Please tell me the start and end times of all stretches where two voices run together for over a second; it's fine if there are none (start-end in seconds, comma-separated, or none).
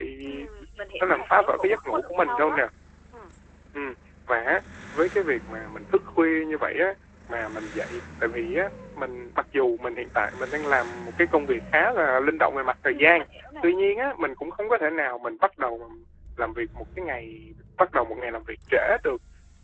1.0-2.6